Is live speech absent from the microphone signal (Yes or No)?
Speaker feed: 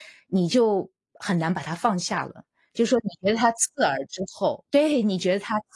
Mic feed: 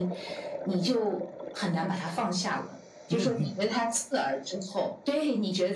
No